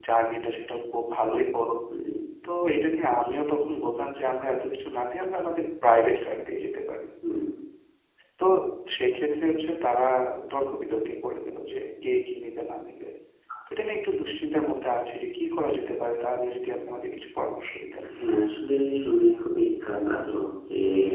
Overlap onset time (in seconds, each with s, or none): none